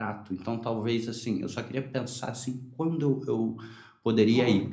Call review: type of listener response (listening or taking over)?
listening